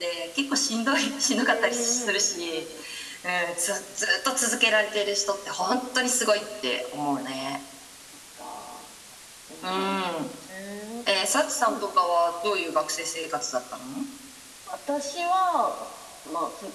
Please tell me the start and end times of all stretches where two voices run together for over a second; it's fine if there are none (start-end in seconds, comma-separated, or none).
1.4-2.6